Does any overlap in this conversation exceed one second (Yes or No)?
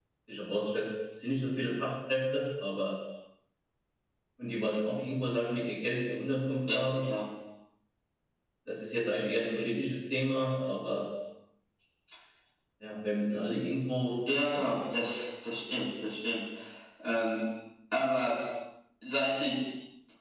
No